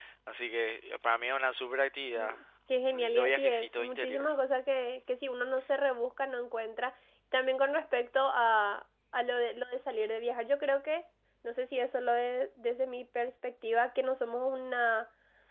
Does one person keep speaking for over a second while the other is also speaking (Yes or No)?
Yes